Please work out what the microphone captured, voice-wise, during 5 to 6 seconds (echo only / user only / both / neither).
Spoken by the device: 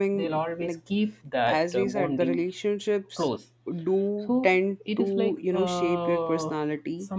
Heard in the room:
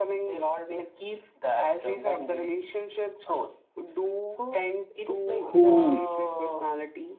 both